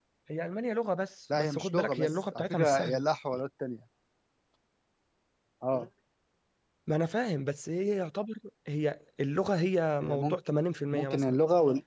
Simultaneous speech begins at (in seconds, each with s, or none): 1.3 s